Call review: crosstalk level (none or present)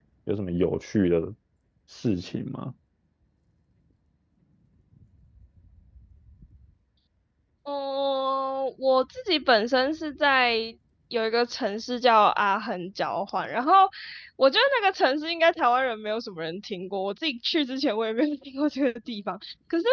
none